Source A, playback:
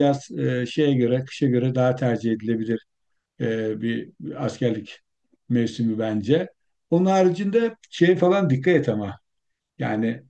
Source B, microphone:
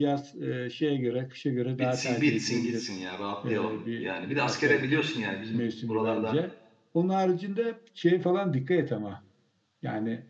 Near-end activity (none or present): present